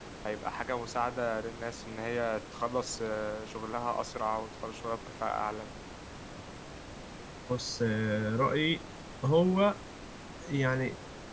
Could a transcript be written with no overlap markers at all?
Yes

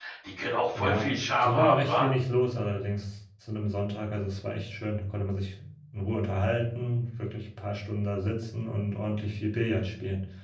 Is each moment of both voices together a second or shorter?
No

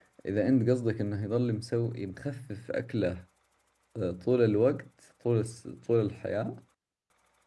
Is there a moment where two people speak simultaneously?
No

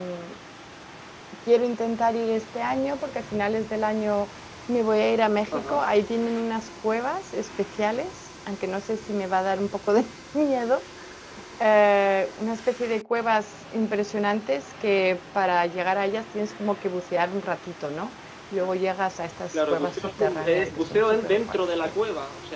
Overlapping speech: Yes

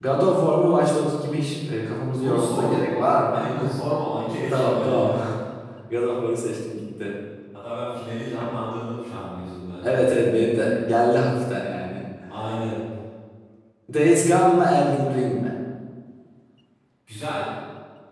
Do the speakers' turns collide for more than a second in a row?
Yes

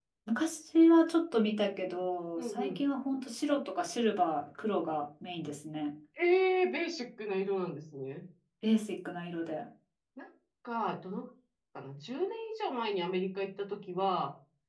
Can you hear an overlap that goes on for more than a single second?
No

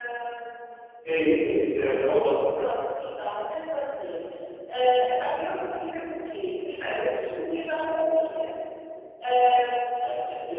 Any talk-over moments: No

